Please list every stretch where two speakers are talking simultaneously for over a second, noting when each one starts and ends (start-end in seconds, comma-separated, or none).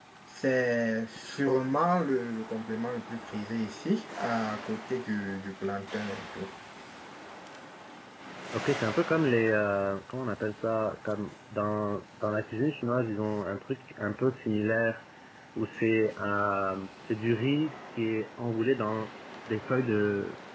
none